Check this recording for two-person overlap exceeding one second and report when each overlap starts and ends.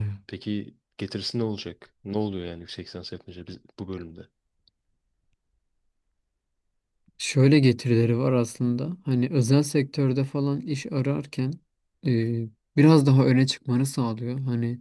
none

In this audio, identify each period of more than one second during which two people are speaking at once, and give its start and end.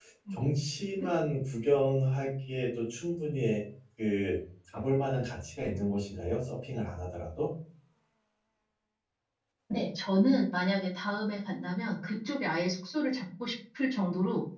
none

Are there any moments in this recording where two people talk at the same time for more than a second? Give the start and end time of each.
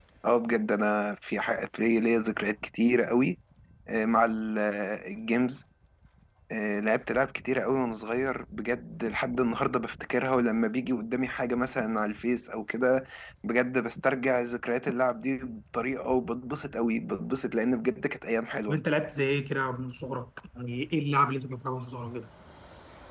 none

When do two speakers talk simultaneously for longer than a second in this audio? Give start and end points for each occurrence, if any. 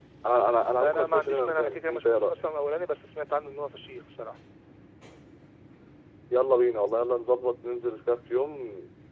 0.8-2.3

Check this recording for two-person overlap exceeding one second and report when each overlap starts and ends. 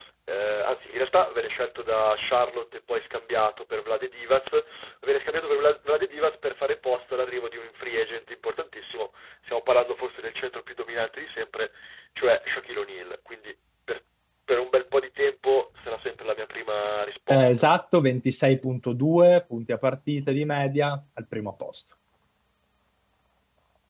none

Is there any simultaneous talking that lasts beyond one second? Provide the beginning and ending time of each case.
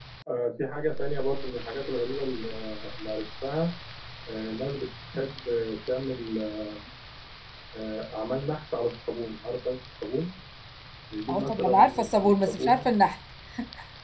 11.3-12.9

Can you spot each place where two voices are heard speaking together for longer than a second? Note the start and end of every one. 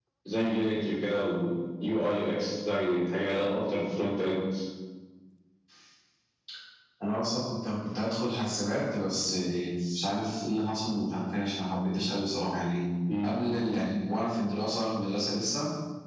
none

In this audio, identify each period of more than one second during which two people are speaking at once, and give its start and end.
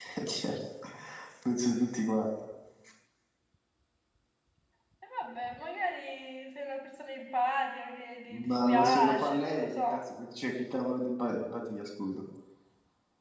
8.5-10.0

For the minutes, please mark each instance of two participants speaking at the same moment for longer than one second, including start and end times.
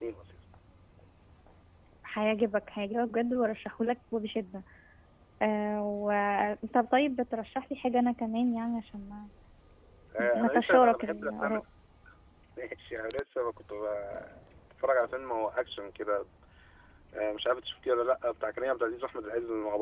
10.4-11.6

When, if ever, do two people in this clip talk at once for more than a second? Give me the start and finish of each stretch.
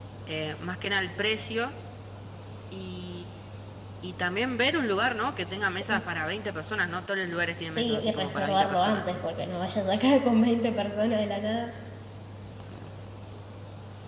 7.8-9.1

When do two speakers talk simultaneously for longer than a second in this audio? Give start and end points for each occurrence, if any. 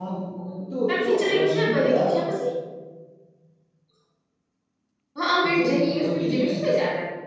0.9-2.2, 5.4-6.6

